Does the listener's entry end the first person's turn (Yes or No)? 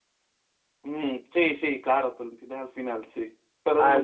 No